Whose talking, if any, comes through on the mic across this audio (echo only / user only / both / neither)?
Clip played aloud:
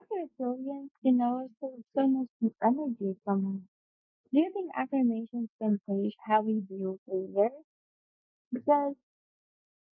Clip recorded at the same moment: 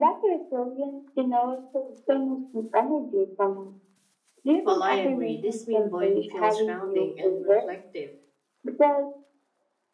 both